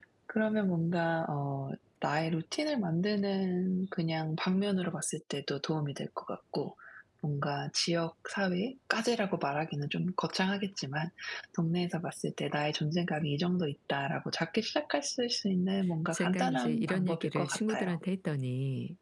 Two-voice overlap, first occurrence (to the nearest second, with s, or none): 16 s